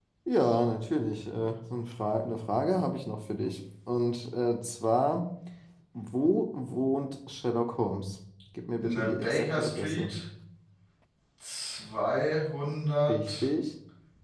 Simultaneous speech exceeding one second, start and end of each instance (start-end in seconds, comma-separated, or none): 8.8-10.1